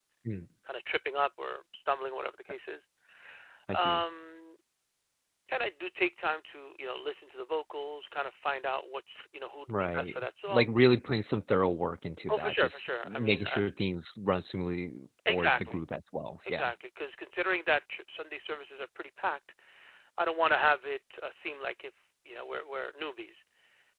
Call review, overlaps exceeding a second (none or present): present